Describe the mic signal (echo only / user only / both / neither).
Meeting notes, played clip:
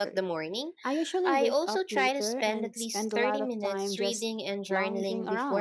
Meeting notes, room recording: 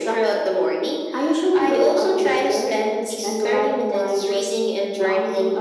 echo only